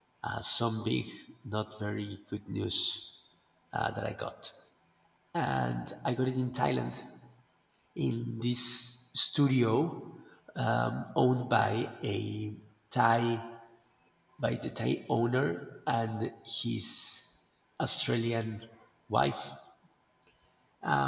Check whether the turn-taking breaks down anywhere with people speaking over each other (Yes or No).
No